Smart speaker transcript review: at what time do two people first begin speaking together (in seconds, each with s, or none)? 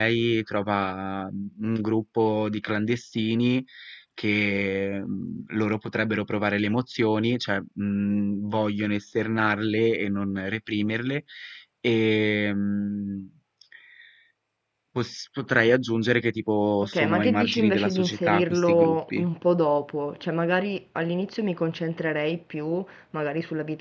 16.8 s